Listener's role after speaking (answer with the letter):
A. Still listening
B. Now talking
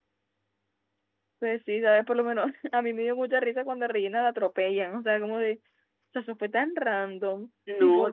A